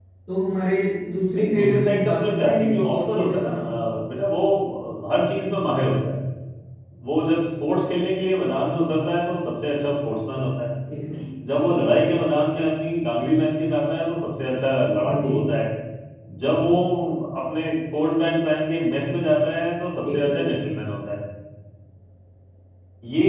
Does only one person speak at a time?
No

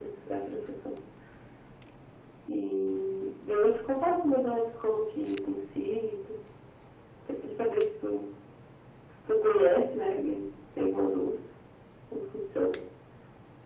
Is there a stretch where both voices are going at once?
No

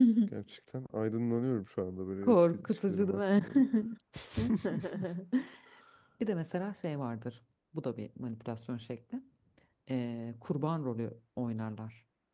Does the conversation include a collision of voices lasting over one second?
Yes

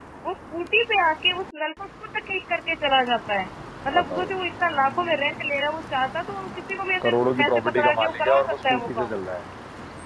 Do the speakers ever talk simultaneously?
Yes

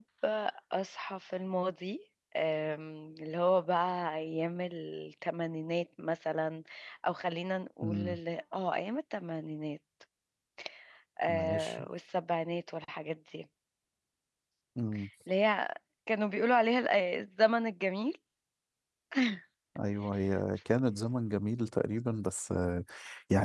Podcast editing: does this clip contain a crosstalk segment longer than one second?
No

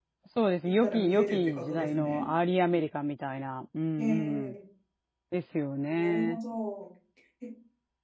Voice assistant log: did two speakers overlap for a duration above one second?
Yes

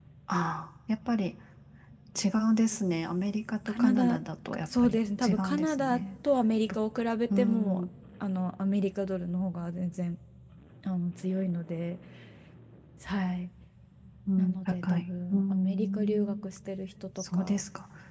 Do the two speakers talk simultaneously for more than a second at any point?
Yes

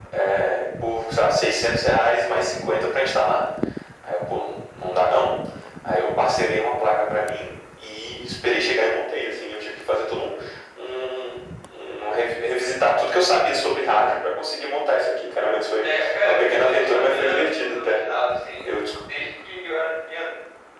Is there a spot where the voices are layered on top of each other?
Yes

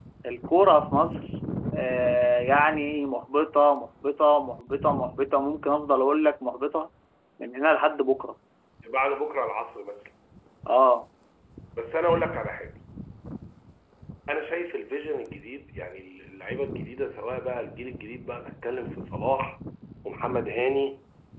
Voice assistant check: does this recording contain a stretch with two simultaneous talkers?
No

